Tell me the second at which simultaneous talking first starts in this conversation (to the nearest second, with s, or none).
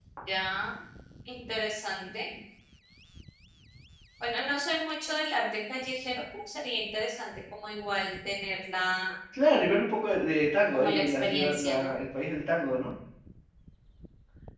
11 s